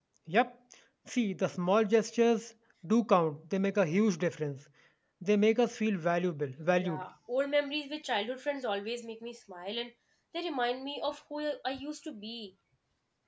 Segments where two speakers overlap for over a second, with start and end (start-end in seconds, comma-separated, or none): none